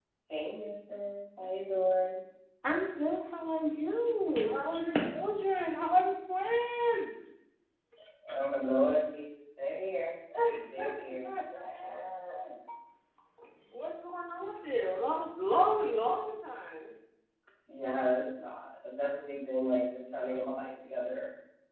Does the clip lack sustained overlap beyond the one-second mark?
Yes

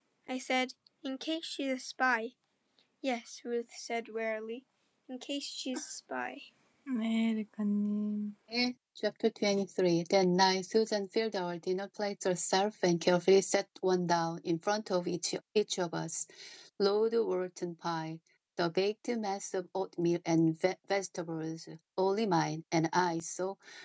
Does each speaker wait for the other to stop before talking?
Yes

